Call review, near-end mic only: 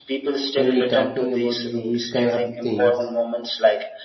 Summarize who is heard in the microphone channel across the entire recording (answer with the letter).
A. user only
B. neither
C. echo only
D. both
D